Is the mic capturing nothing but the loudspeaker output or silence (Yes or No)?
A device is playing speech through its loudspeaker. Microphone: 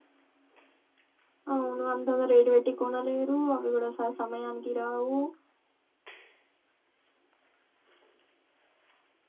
No